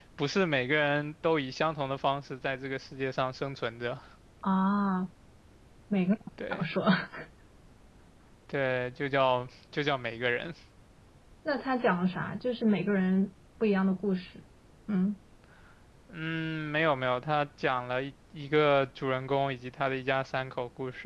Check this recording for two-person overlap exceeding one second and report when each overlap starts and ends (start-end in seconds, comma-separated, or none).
none